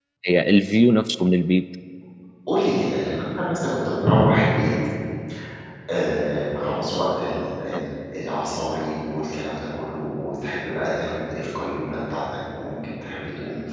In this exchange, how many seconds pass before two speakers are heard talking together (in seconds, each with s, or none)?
none